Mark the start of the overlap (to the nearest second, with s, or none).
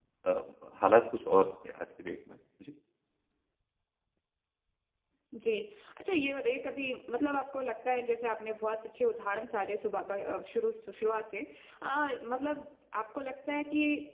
none